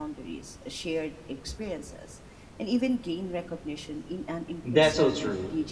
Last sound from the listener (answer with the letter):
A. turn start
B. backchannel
A